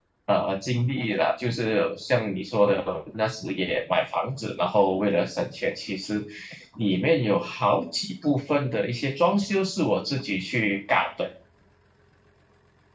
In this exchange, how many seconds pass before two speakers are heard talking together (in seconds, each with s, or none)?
none